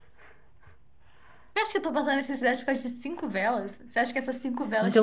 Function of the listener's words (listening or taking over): taking over